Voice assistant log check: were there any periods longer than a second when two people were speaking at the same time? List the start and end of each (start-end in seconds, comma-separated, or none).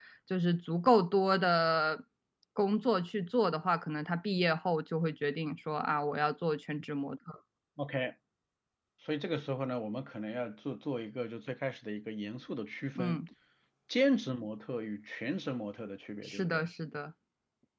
none